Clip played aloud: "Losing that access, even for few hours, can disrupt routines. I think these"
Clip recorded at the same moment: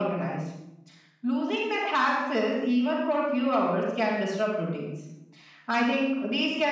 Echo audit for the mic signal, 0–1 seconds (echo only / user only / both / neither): echo only